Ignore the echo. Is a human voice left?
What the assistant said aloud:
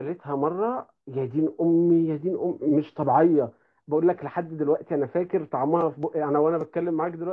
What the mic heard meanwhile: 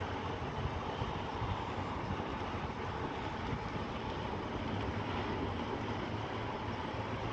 No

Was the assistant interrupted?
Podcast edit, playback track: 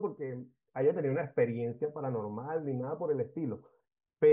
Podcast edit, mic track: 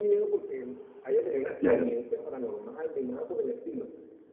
Yes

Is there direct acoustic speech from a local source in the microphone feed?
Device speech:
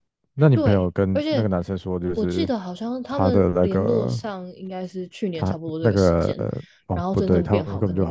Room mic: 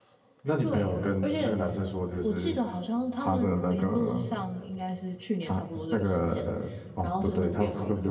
No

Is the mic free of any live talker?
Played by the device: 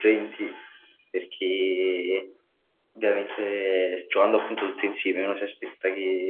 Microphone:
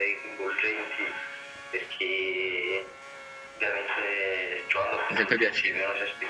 No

